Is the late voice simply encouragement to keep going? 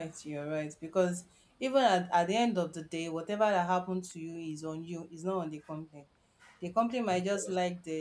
Yes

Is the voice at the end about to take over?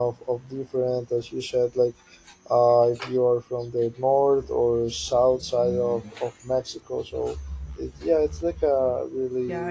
Yes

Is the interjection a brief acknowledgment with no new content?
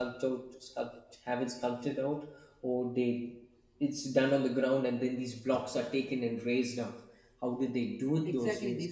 No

